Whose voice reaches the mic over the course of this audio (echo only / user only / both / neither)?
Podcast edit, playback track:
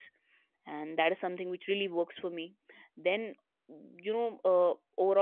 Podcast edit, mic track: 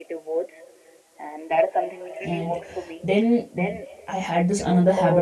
both